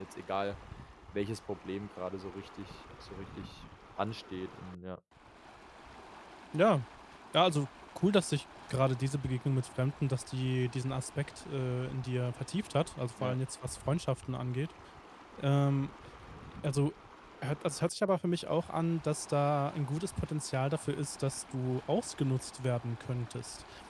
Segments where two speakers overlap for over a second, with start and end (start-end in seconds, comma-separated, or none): none